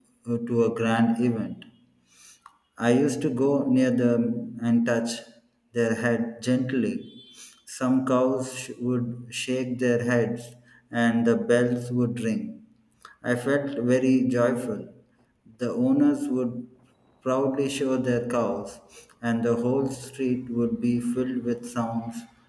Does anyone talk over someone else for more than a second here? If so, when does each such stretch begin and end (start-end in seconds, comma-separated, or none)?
none